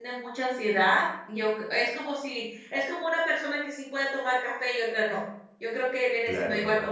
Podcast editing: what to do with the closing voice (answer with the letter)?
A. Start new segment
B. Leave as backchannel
B